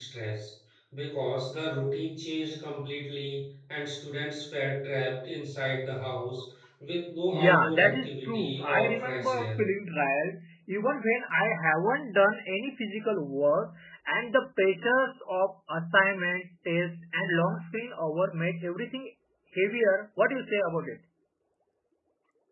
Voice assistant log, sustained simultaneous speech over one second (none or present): present